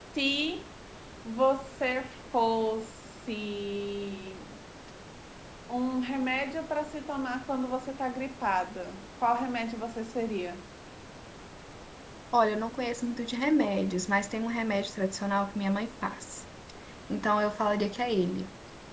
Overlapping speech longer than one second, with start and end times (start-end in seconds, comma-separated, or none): none